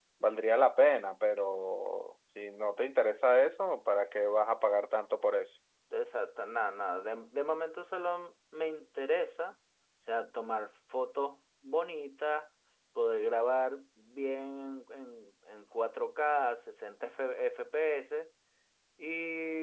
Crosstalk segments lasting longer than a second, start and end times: none

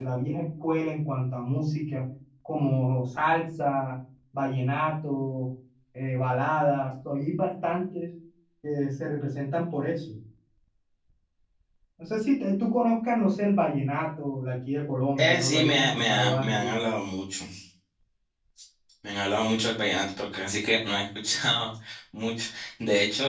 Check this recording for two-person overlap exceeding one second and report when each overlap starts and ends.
15.2-16.7

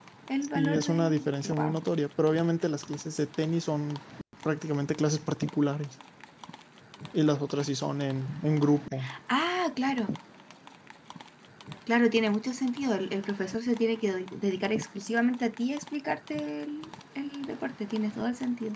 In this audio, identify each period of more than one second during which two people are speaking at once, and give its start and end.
0.6-1.8

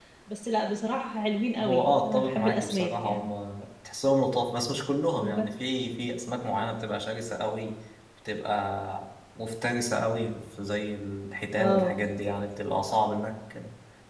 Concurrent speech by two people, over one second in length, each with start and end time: 1.6-3.3

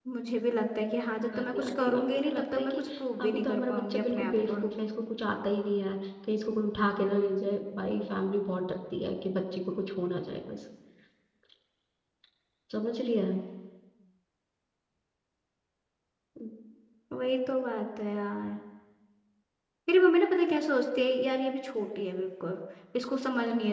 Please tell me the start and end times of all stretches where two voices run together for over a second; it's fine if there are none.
1.4-2.8, 3.2-4.5

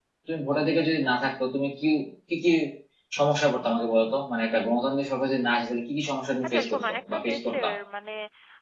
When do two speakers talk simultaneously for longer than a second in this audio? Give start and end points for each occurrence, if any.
6.4-7.7

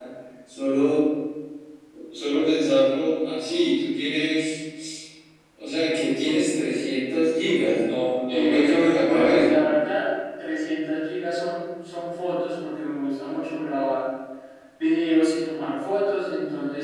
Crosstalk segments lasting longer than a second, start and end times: 8.3-9.6

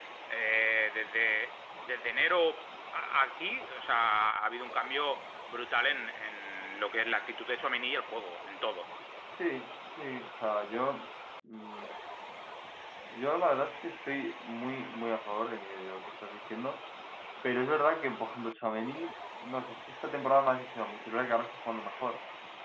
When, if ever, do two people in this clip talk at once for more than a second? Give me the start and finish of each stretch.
none

